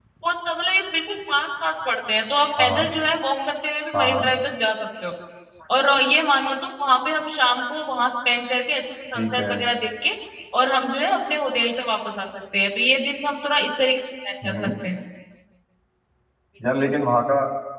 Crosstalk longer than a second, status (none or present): none